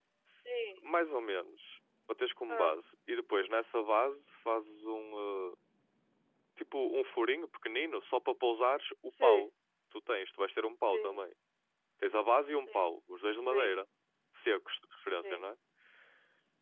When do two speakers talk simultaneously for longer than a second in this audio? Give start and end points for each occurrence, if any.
none

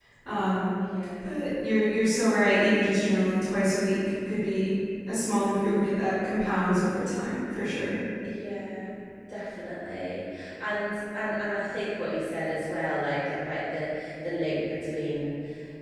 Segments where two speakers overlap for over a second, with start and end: none

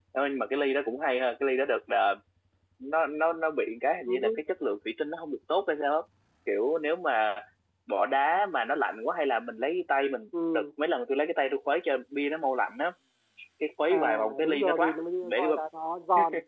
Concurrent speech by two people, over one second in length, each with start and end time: 13.9-15.6

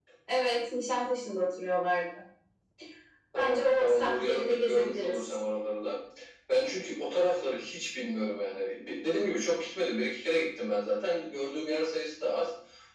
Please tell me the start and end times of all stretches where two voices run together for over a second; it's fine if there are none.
3.4-5.2

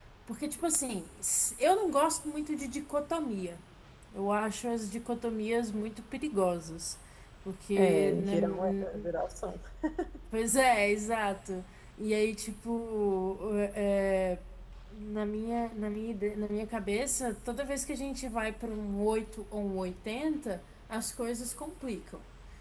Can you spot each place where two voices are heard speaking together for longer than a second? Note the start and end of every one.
7.8-9.1

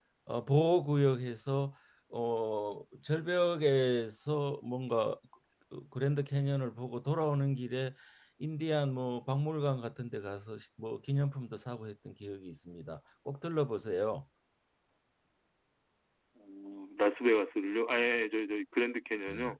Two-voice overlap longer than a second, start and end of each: none

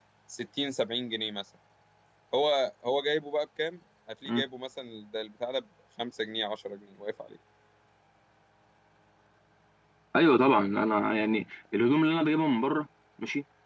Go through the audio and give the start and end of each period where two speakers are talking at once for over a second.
none

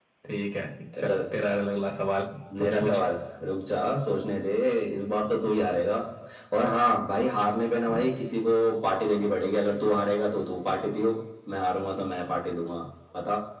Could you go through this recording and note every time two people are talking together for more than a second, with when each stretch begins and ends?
none

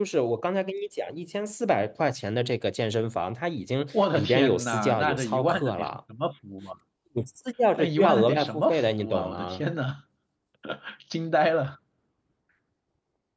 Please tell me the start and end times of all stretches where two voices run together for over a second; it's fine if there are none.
4.1-6.0, 7.8-9.6

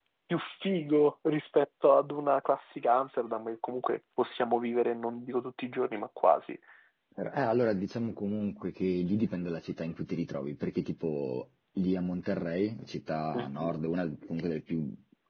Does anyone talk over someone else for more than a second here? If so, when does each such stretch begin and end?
none

